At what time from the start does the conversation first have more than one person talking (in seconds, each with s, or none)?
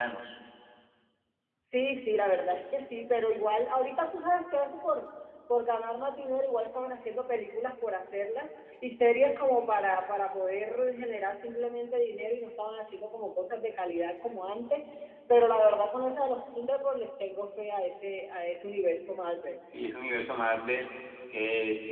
none